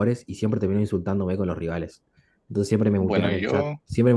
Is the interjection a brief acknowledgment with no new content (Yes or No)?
Yes